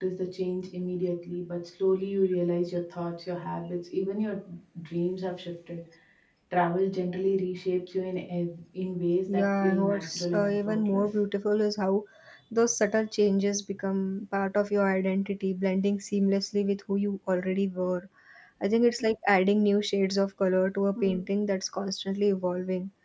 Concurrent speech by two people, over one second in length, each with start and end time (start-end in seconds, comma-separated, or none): 9.3-11.1